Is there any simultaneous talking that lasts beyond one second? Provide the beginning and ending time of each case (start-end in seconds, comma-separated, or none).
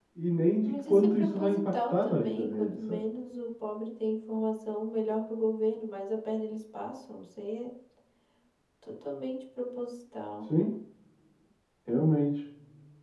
0.6-3.0